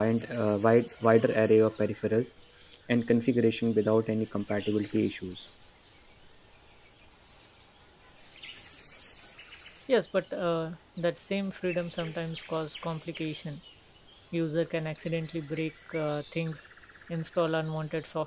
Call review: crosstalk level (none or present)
none